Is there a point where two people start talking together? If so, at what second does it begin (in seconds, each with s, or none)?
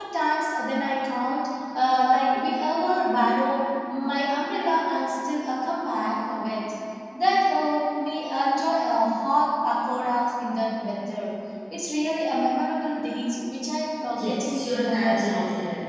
14.2 s